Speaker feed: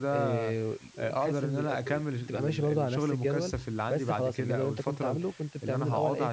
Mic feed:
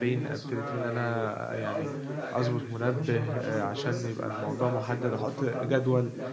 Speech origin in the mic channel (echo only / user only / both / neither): both